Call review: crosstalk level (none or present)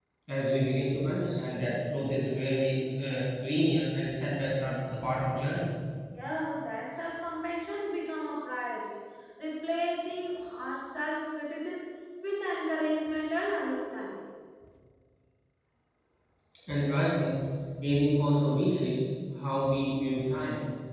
none